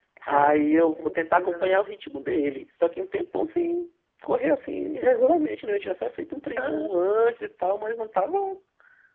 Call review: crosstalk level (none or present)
present